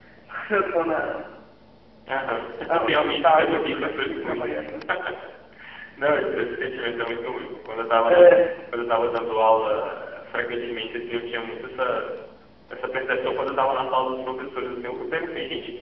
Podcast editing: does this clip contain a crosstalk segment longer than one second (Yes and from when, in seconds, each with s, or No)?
Yes, from 2.8 s